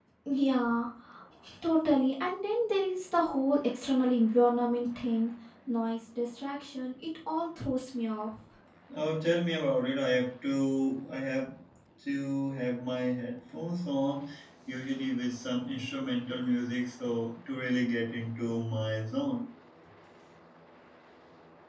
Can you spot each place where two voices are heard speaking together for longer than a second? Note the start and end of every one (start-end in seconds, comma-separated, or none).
none